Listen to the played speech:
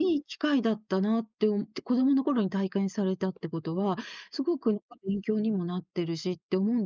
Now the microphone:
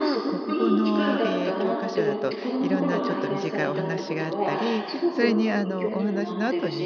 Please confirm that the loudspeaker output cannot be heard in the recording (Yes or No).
No